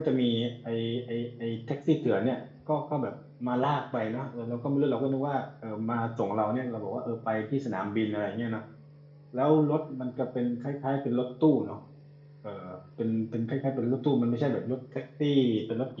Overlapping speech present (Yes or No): No